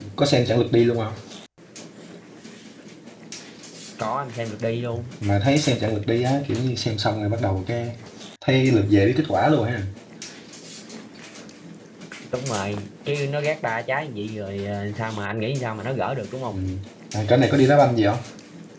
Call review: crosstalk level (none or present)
none